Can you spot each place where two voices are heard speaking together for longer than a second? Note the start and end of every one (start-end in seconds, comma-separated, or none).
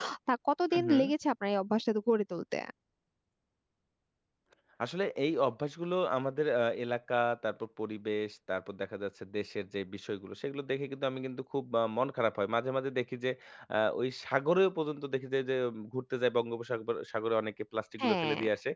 none